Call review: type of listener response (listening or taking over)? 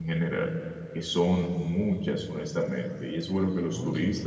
listening